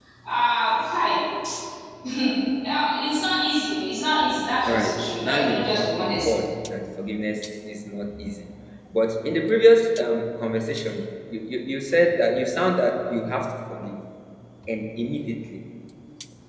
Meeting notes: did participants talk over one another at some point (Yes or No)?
Yes